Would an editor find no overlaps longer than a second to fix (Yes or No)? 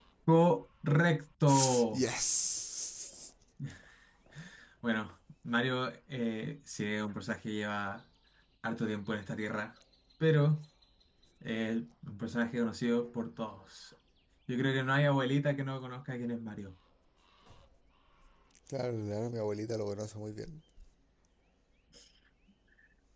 Yes